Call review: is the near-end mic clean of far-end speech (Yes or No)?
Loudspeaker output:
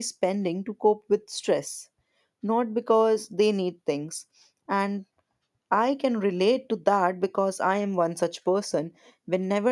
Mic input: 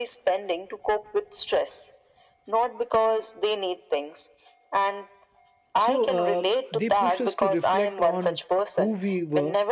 No